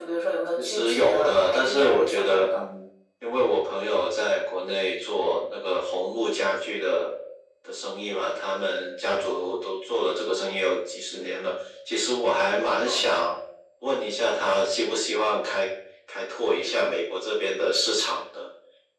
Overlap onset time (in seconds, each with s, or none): 0.6 s